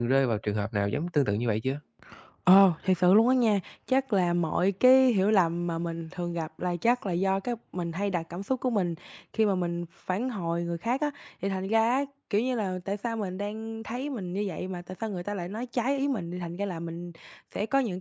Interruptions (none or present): none